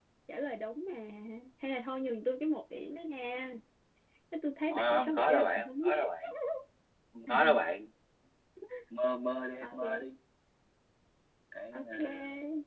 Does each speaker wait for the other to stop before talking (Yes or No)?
No